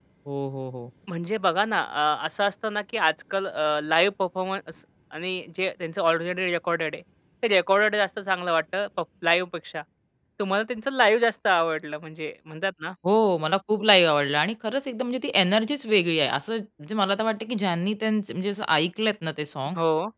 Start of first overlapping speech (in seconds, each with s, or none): none